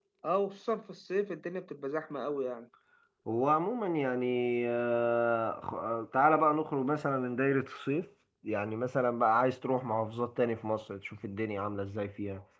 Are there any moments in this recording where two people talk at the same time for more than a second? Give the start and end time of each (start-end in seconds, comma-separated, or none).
none